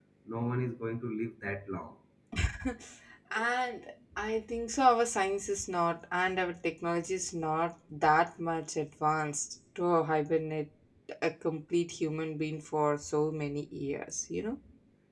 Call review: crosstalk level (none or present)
none